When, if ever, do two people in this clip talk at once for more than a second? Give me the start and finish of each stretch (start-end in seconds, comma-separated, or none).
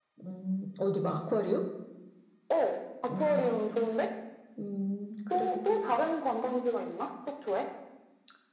none